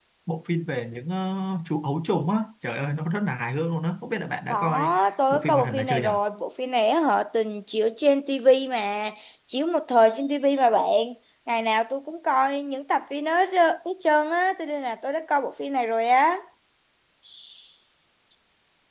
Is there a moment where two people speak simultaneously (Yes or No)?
Yes